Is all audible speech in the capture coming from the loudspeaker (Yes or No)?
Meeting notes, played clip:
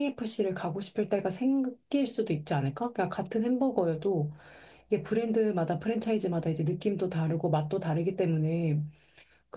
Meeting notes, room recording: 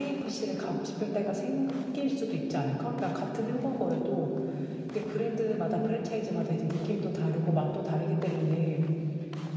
Yes